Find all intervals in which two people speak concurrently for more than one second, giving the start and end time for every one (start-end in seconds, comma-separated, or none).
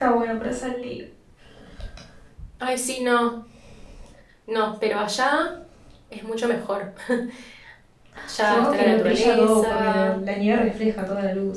8.4-10.2